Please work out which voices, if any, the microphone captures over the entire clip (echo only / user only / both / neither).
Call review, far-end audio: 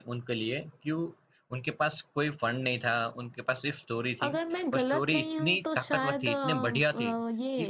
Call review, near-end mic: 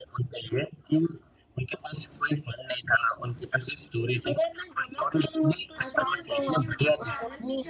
both